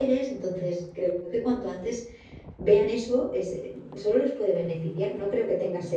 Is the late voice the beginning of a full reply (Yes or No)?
No